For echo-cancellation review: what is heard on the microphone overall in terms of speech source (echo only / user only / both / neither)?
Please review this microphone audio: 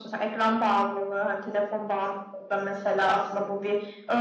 echo only